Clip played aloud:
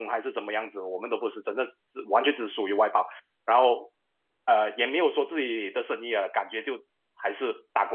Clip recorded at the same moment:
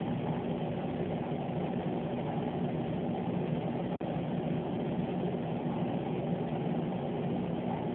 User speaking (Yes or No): No